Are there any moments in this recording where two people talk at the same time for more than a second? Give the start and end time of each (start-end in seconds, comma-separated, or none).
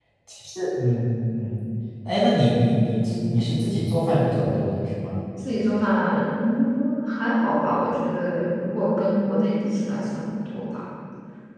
none